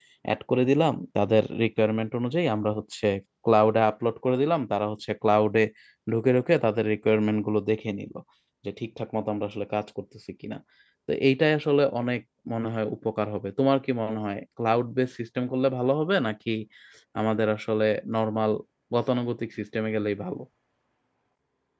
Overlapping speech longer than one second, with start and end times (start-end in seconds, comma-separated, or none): none